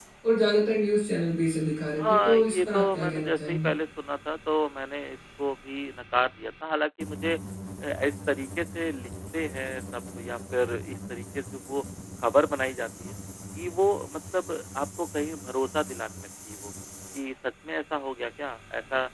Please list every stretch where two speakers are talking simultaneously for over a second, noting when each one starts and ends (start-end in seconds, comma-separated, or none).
2.0-3.7